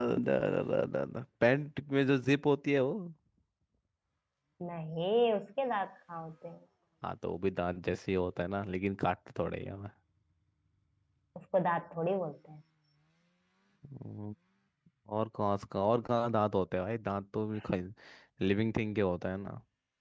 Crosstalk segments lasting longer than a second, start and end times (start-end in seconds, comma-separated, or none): none